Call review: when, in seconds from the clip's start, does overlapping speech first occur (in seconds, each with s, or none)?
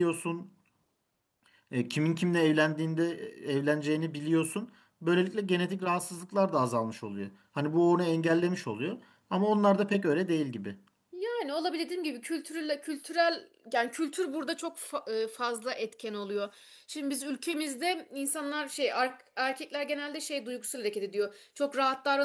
none